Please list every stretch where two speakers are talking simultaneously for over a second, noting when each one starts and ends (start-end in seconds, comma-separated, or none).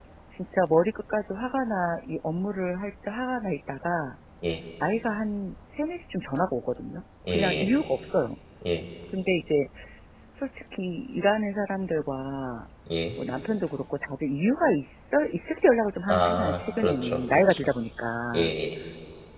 16.1-17.7